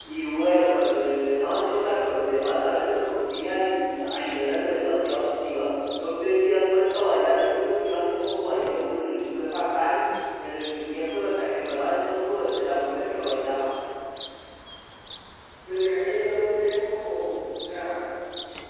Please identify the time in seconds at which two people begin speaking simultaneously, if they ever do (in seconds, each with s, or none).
none